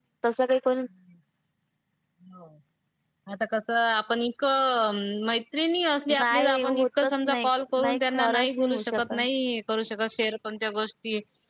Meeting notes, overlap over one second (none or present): present